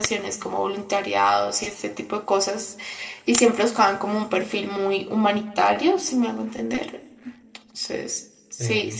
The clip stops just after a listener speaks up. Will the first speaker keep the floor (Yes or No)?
Yes